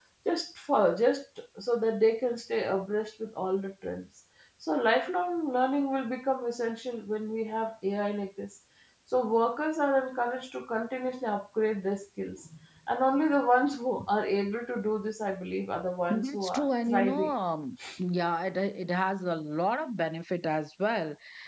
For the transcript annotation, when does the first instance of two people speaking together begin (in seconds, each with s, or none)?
16.1 s